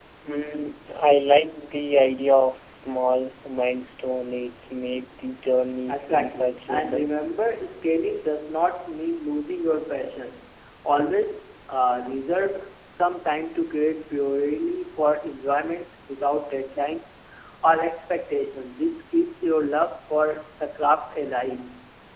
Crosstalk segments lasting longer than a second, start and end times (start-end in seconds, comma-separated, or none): 5.9-7.1